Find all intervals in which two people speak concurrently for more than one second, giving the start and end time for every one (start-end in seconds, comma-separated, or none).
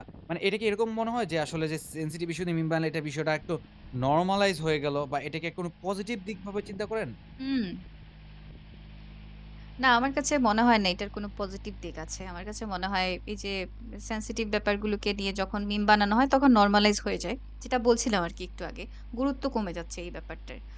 none